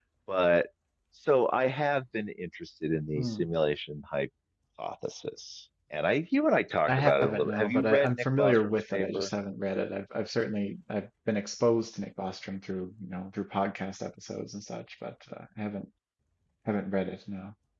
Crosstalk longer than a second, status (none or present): present